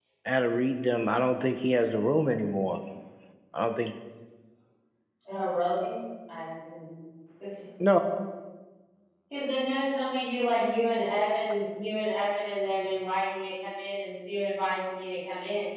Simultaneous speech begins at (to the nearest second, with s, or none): none